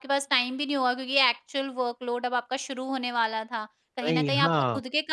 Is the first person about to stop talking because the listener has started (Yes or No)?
No